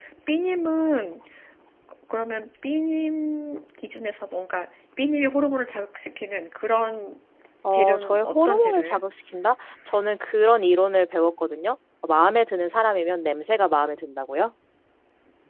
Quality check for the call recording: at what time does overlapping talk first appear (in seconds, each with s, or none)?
7.7 s